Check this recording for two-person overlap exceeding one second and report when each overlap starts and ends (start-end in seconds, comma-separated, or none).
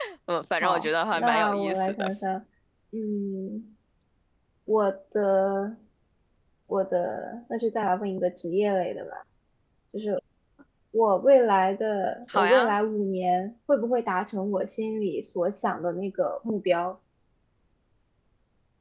0.6-2.1